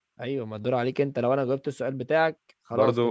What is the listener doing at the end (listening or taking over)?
taking over